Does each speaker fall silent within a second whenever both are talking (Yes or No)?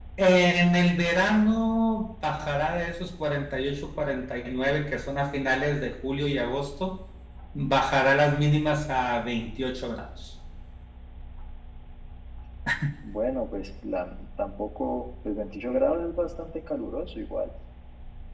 Yes